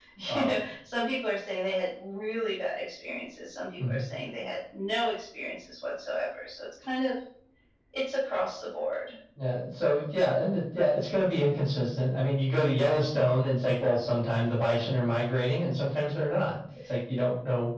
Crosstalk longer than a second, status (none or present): none